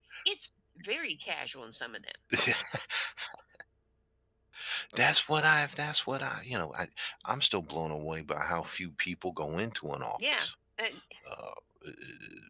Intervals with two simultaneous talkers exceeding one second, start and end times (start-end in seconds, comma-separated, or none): none